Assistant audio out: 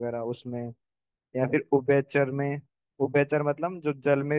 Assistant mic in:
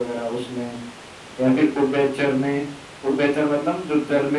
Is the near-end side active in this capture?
No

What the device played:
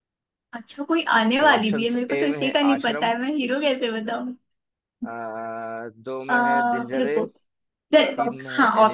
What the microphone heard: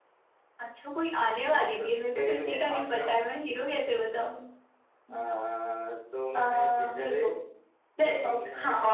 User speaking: No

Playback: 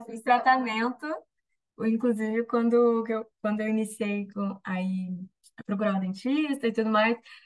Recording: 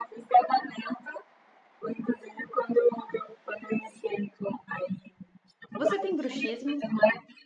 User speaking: Yes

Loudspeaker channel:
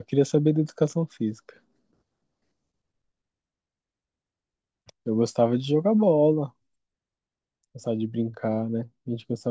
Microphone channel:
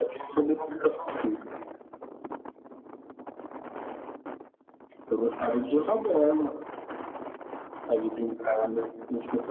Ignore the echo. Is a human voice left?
No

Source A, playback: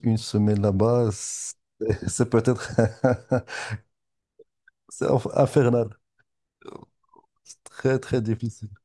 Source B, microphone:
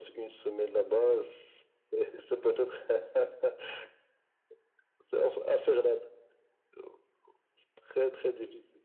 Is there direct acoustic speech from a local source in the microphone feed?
No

